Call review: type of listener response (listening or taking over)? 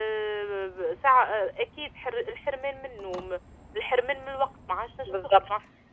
listening